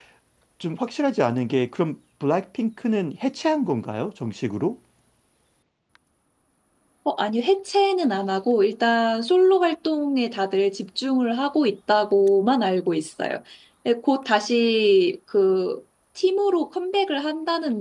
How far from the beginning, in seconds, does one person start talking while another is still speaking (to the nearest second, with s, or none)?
none